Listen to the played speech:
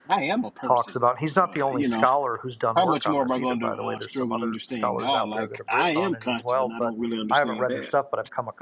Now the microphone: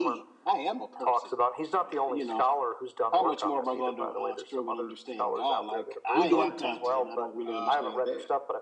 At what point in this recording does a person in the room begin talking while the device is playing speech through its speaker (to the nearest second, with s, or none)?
6 s